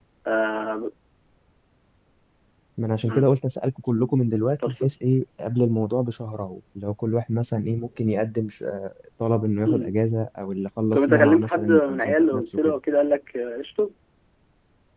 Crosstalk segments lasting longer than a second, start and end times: 10.9-12.7

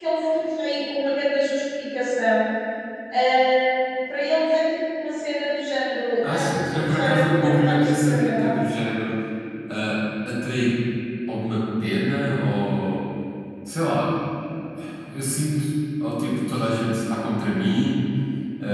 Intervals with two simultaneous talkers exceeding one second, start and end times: 6.2-8.5

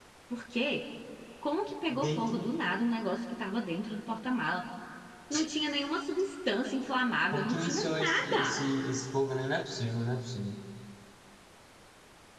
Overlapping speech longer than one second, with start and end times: 7.3-8.6

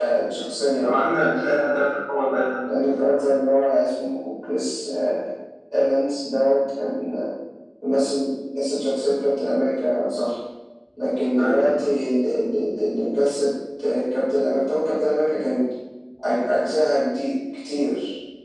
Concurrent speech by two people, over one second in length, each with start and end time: none

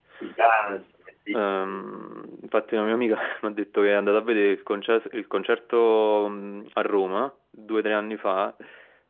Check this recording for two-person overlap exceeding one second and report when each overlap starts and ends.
none

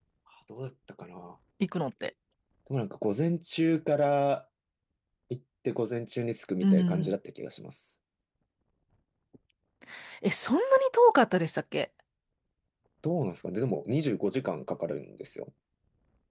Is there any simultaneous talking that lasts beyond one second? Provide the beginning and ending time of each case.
none

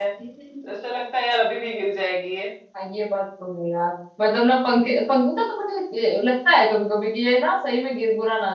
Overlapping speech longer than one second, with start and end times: none

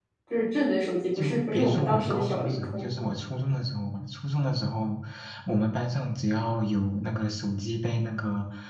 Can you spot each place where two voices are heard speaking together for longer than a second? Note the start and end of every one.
1.2-2.9

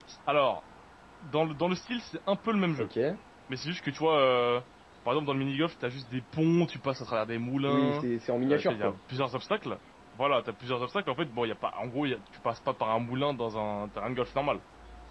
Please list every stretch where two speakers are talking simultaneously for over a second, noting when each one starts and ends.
none

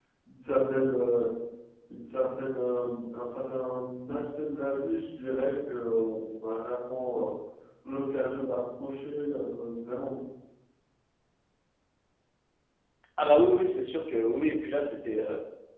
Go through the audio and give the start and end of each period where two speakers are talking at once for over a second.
none

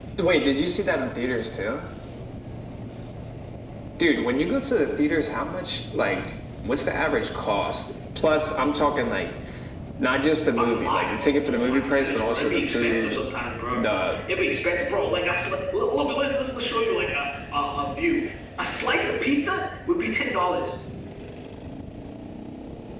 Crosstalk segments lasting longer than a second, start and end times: 10.5-13.2

